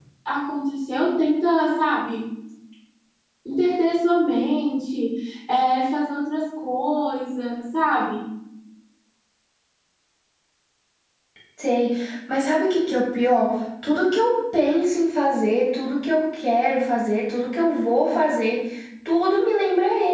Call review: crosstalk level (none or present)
none